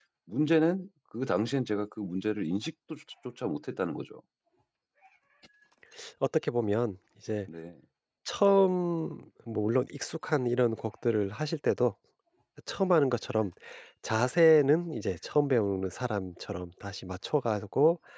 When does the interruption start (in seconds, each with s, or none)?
none